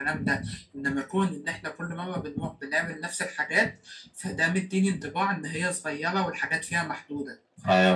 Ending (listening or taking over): taking over